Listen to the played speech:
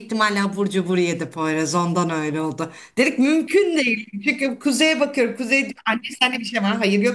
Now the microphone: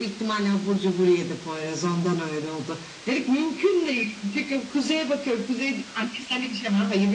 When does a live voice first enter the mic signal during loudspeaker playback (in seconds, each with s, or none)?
none